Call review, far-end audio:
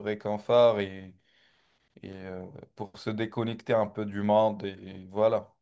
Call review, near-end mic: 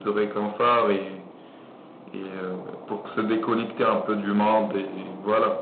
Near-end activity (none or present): none